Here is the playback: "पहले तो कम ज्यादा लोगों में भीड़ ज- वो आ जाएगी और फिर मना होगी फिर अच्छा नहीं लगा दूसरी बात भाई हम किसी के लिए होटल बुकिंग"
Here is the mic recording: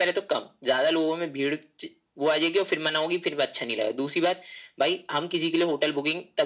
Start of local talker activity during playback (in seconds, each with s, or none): none